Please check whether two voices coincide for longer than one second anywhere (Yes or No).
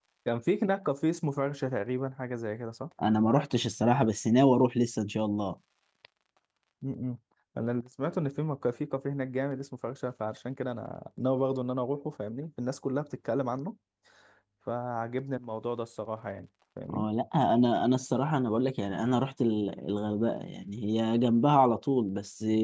No